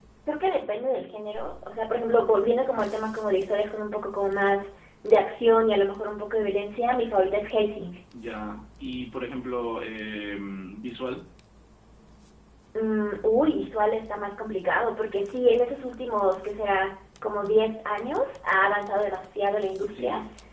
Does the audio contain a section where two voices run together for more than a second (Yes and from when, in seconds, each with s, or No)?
No